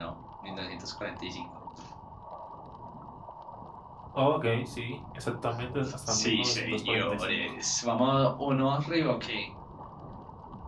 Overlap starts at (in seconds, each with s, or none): 5.8 s